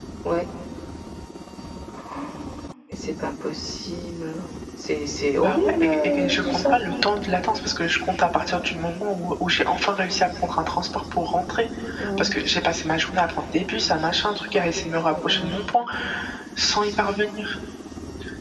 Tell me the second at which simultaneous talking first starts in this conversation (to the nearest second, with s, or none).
5 s